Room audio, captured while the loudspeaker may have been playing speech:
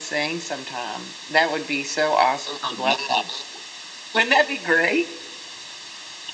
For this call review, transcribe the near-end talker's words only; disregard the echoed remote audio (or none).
none